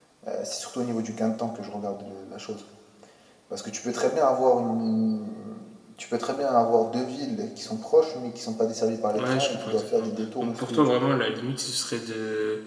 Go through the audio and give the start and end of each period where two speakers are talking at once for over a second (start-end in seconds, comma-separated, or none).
9.1-11.0